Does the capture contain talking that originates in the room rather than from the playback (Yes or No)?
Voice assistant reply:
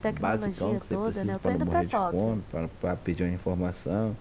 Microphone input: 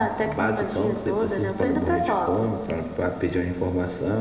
No